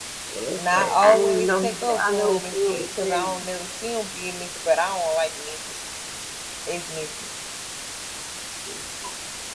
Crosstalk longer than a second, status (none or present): present